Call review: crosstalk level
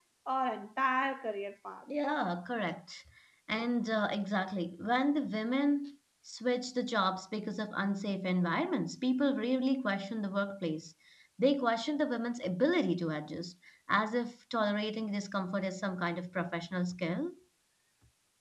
none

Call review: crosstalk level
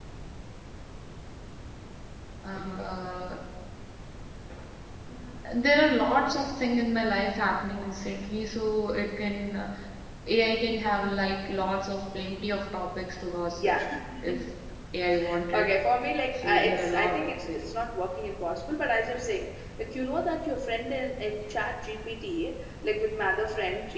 present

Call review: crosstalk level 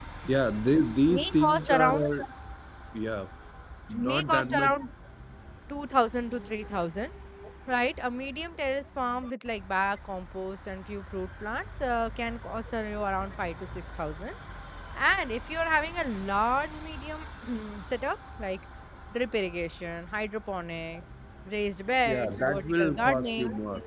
present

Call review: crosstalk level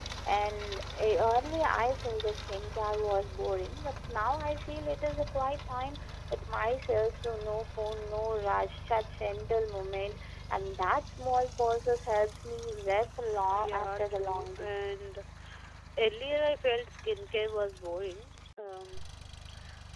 present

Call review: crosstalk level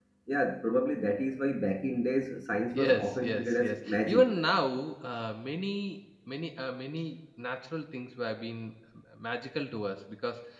present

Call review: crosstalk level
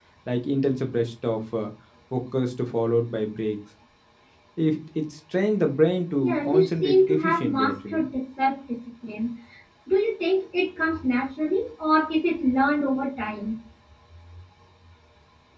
present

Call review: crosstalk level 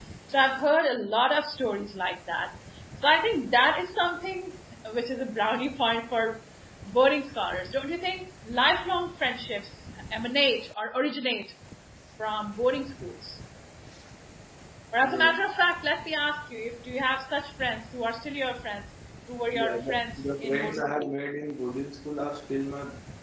present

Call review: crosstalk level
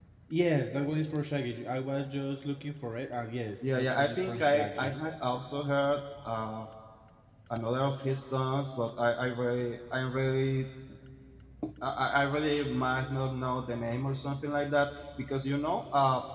present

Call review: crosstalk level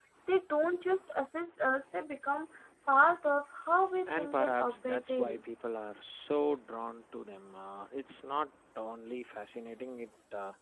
present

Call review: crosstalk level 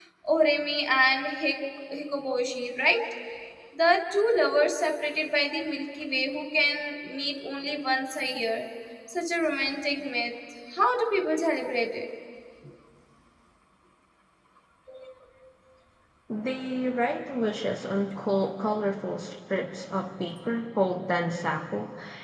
none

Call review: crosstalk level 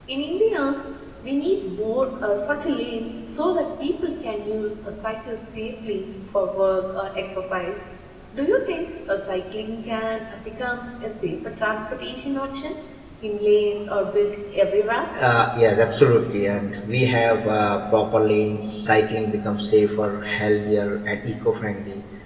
none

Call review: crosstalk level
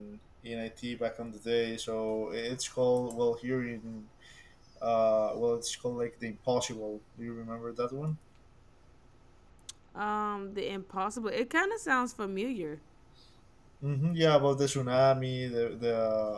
none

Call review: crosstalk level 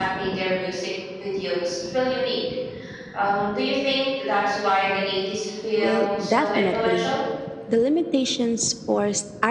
present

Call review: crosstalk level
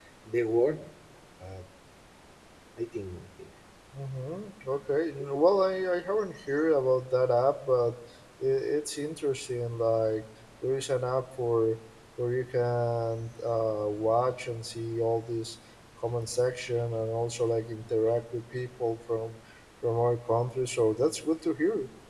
none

